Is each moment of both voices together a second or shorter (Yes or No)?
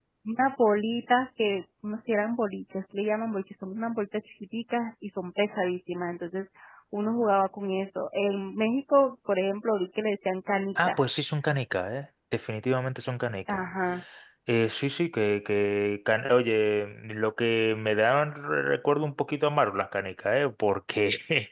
Yes